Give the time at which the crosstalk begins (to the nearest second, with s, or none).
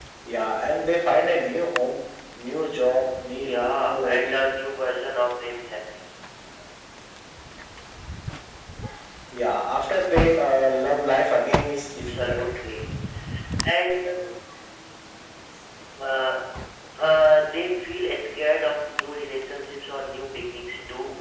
3 s